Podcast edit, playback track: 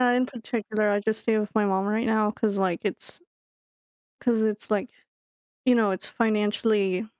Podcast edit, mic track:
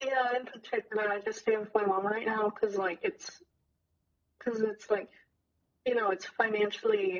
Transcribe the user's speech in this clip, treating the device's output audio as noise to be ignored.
none

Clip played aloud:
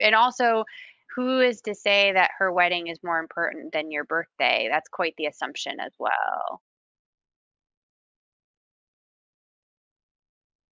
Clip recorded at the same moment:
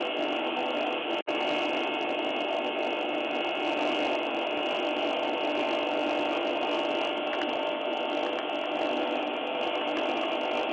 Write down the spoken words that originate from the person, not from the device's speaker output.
none

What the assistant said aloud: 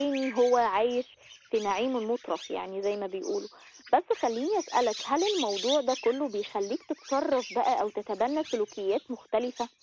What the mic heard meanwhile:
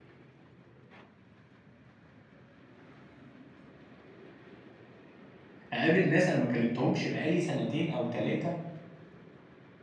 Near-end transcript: أقابل ناس أنا ما كلمتهمش بقى لي سنتين أو 3

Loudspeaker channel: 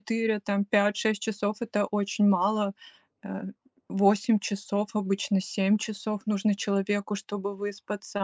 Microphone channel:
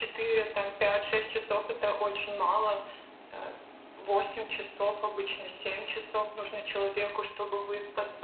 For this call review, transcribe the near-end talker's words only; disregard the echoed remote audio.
none

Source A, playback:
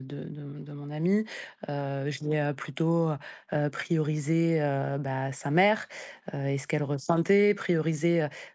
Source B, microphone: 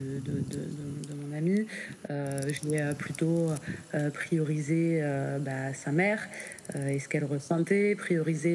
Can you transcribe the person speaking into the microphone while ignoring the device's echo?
none

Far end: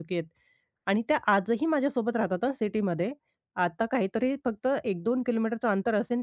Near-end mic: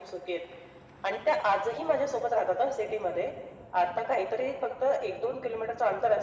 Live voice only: none

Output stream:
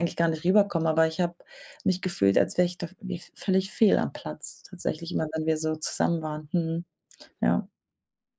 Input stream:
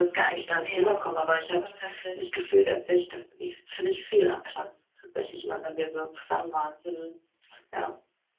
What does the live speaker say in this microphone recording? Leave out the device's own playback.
Ja, das ist verständlich.

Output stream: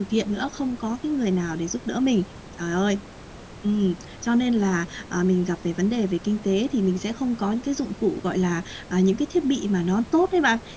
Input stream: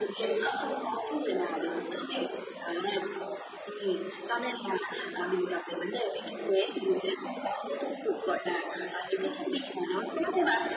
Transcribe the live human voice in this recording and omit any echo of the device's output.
none

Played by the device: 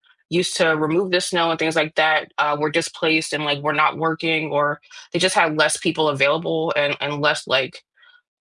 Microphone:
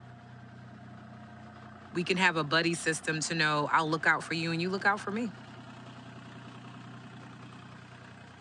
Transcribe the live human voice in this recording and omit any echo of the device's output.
we can have a buddy system to know I'll look out for you and you look out for me.

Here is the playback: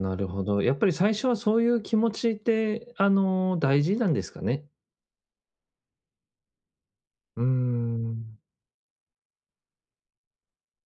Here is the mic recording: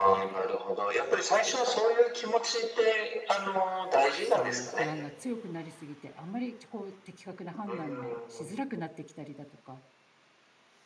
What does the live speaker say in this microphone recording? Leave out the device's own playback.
その不安が強くなりすぎて、あんまりこう的確な判断がしづらくなってきたりだとか。

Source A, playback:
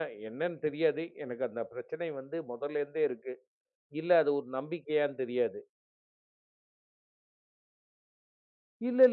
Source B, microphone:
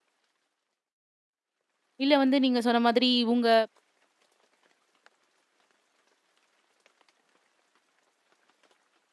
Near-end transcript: இல்ல வந்து நீங்க சொன்ன மாதிரி உங்க

